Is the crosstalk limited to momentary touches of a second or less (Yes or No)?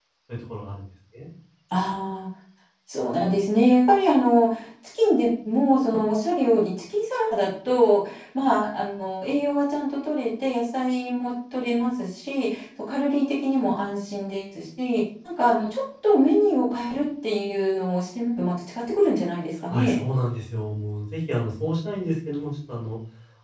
Yes